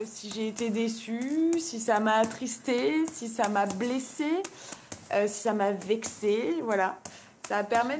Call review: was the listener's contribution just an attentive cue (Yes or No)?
Yes